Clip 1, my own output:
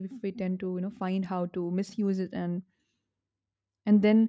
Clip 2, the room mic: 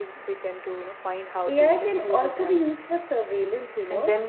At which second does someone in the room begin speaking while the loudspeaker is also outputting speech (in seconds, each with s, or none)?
1.4 s